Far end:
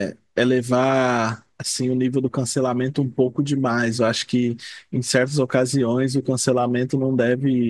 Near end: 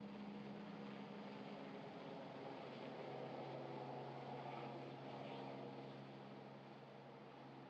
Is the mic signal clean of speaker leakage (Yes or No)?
Yes